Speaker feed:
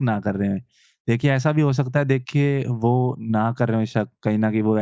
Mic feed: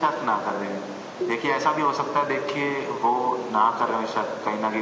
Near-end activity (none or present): present